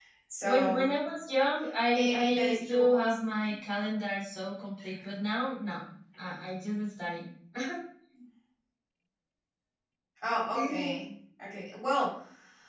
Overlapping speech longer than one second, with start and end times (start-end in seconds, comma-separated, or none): 1.9-3.2